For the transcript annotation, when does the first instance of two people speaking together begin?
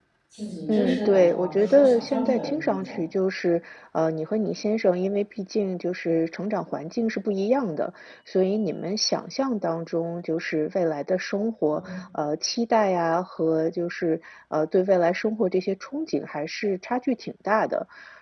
0.7 s

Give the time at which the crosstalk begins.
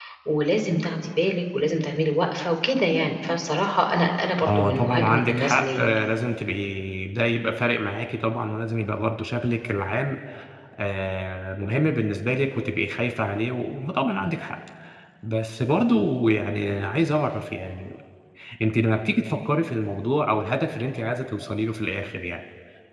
4.4 s

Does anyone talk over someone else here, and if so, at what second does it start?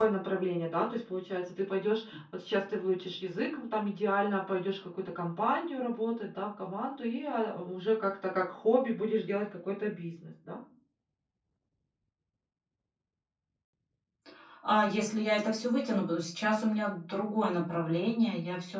none

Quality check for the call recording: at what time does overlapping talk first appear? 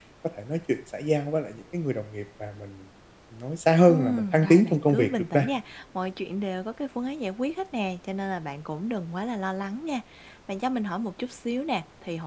3.9 s

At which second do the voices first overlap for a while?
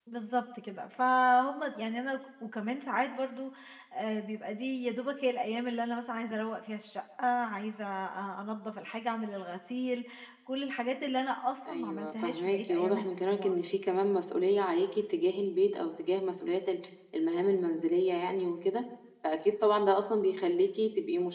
11.6 s

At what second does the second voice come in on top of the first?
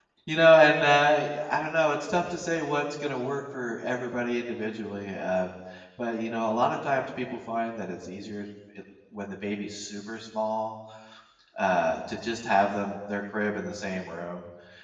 none

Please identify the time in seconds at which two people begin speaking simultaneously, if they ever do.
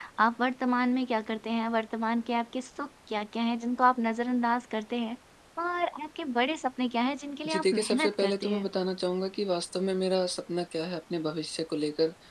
7.5 s

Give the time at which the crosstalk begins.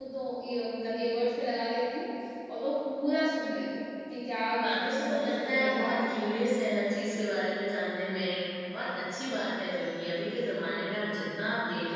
4.5 s

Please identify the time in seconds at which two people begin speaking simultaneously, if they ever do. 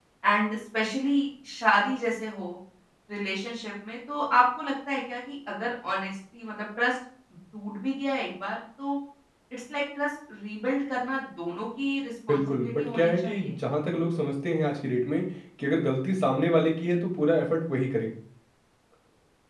12.3 s

